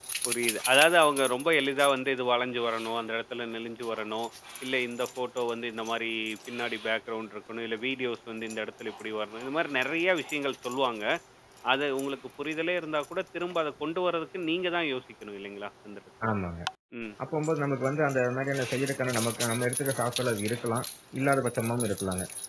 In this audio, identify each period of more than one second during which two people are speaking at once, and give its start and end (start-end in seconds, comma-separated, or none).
none